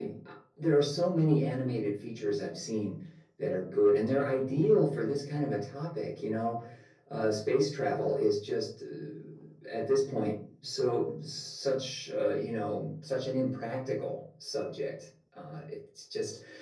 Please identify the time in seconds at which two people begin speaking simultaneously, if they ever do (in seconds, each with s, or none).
none